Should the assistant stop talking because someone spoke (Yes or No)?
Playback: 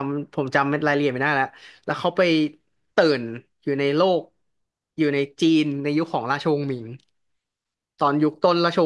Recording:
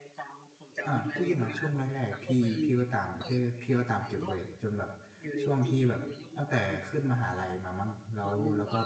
Yes